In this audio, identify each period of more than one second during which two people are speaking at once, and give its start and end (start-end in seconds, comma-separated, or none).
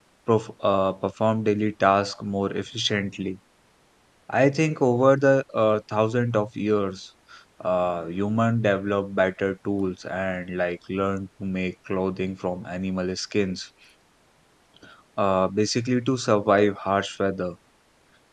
none